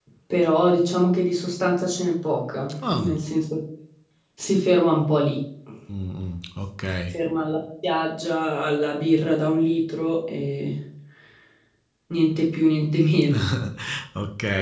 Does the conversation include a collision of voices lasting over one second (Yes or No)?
No